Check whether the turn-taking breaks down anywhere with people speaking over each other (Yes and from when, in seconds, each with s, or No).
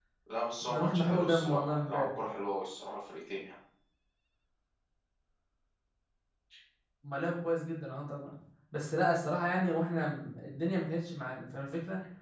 Yes, from 0.6 s